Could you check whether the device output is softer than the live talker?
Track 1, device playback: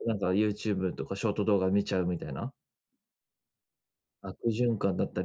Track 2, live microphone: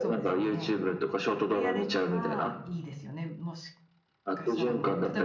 No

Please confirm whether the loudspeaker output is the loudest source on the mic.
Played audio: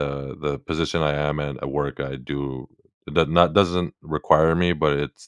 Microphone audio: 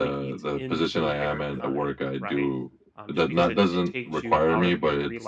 Yes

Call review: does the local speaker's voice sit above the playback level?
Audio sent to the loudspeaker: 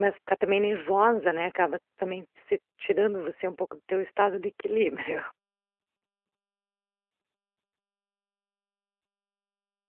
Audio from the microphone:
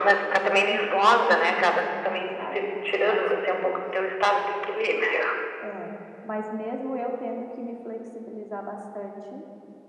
No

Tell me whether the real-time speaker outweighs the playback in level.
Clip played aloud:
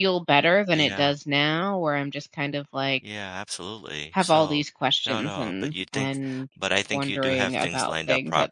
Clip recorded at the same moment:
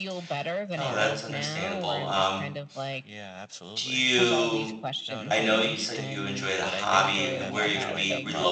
Yes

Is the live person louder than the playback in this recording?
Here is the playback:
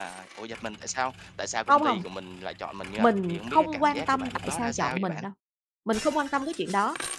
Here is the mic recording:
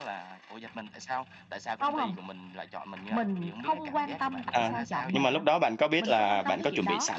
Yes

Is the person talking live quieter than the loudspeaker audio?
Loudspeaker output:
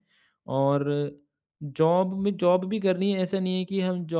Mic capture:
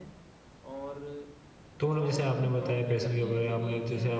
No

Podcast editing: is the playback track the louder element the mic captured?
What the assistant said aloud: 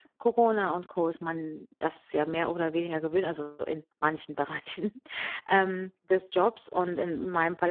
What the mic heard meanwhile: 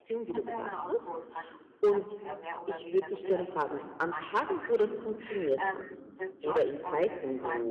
No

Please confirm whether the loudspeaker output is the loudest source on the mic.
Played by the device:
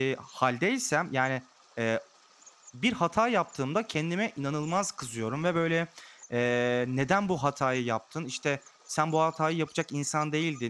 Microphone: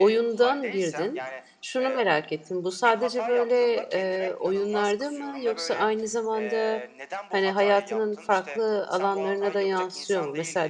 No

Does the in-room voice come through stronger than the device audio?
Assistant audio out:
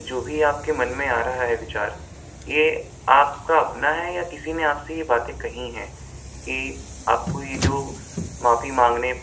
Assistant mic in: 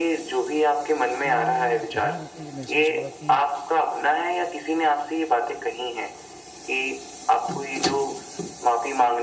No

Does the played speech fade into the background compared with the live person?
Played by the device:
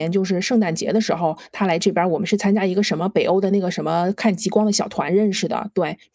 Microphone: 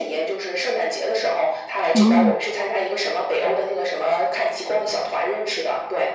Yes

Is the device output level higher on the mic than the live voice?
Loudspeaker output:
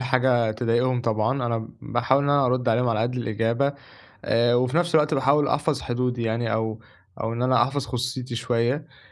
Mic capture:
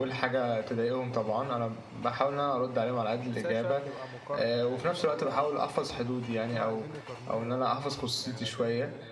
Yes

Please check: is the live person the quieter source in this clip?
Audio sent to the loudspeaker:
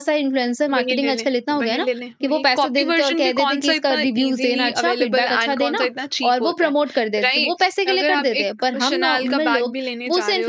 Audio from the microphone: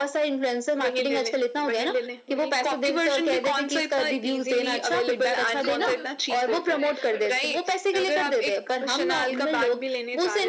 Yes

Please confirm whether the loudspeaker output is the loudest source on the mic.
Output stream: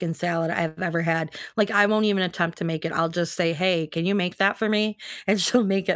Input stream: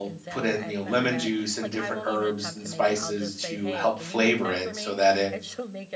No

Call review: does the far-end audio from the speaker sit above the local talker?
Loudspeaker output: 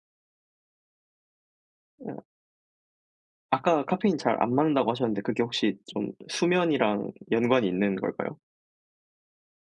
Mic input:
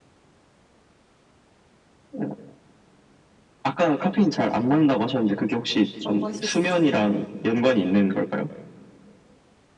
Yes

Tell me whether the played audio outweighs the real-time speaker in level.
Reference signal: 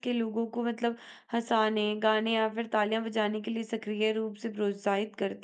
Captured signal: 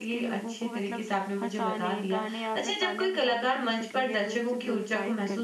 No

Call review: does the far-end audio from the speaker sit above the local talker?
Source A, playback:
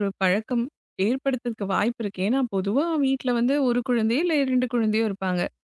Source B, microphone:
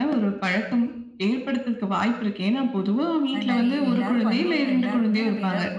Yes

